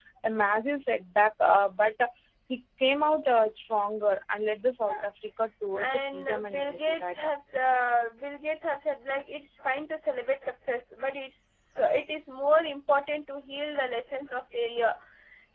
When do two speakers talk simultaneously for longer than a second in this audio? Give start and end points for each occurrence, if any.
5.8-7.2

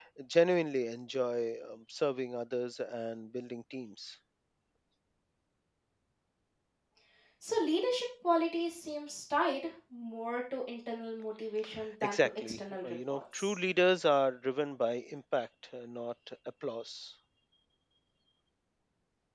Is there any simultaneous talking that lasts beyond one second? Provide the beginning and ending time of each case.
12.0-13.6

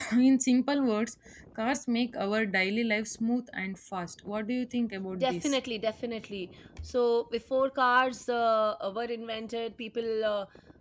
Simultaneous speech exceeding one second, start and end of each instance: none

